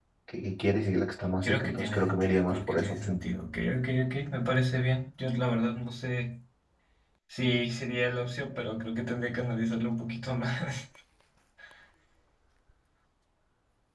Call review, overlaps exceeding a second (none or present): present